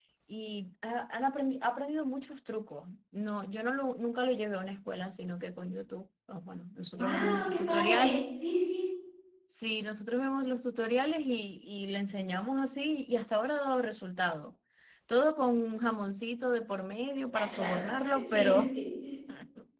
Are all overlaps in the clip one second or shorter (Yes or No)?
No